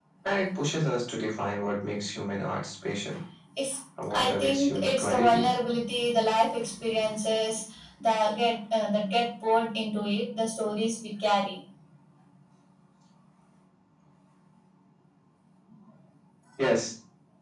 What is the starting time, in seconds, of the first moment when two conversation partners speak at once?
4 s

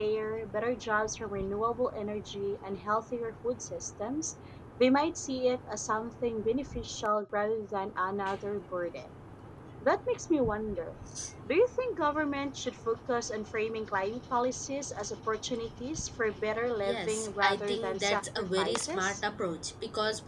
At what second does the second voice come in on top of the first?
17 s

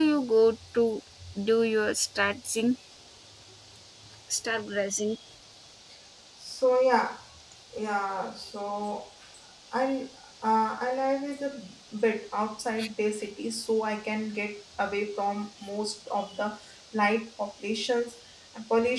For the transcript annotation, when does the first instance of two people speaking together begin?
none

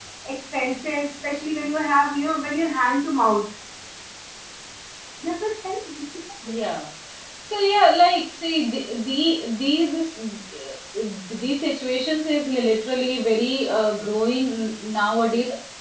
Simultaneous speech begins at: none

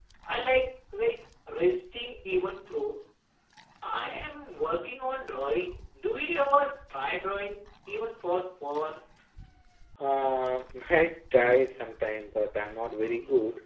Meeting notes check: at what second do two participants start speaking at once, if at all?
none

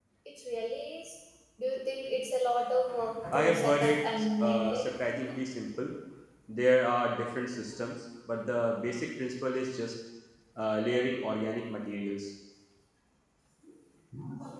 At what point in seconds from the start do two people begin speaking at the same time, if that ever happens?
3 s

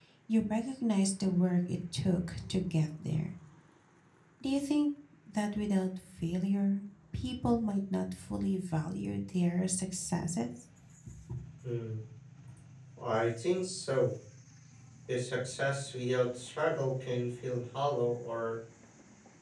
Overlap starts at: none

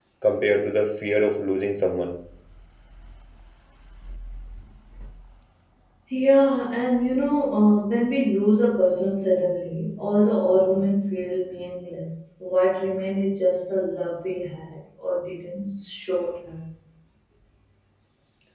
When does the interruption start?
none

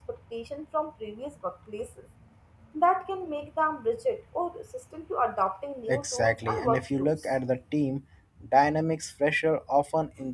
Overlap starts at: 6 s

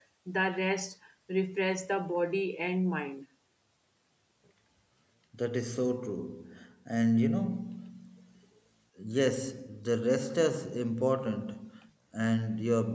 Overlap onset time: none

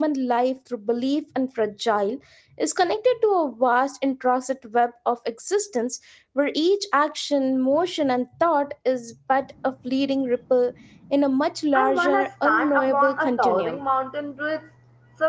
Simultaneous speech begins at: 12 s

